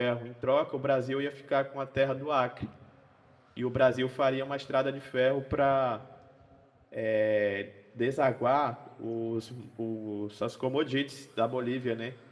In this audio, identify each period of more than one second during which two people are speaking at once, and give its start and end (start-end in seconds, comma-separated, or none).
none